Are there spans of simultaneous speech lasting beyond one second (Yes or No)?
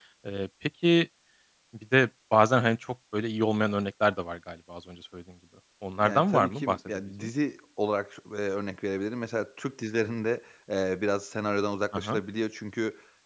Yes